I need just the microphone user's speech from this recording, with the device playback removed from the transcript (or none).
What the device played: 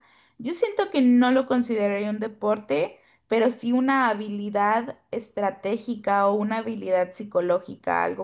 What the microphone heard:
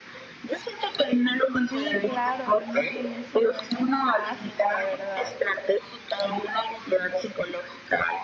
Sí, claro, el uno es buenísimo, es un clásico, la verdad.